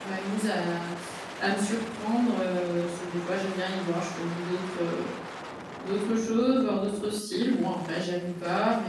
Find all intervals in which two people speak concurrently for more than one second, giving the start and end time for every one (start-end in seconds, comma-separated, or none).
none